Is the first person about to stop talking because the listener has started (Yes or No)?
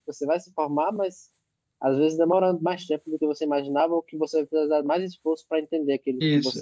Yes